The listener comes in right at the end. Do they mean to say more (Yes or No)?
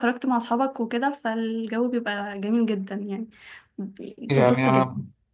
Yes